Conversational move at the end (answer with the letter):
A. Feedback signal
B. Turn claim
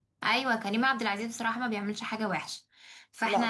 A